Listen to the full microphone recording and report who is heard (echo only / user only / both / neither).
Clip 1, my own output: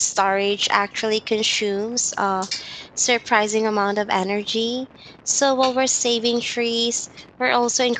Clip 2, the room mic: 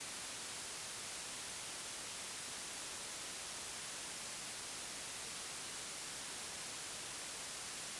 neither